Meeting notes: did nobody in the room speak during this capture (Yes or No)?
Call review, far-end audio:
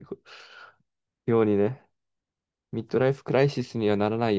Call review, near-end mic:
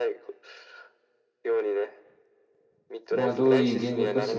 No